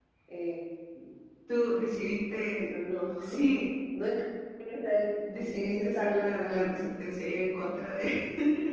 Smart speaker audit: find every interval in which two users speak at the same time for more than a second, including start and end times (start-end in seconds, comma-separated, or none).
5.5-6.8